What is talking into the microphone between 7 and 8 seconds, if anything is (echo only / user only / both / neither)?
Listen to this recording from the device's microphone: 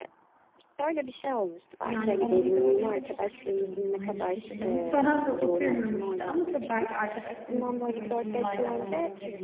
both